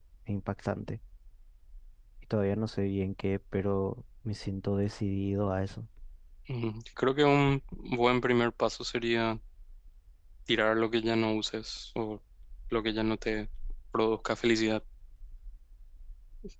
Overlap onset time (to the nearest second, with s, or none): none